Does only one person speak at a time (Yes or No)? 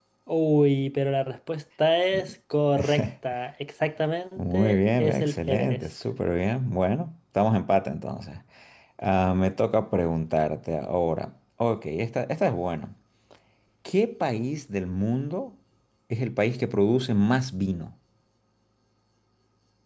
No